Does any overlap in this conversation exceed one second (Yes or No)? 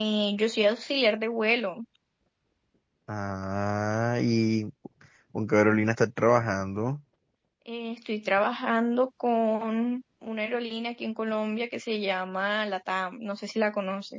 No